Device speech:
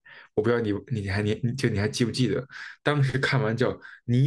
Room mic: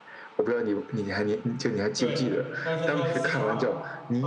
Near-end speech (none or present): present